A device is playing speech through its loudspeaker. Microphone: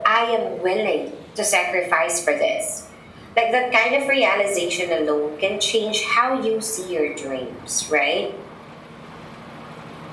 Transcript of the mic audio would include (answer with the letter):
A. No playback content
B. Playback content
B